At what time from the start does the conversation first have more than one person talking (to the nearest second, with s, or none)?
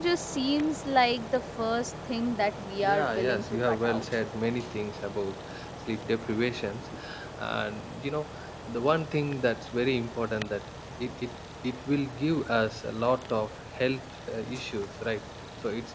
3 s